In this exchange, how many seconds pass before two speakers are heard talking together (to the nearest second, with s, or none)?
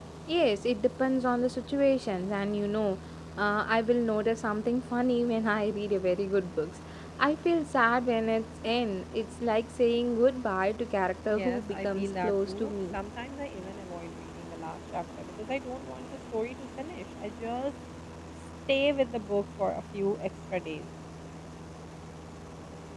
11 s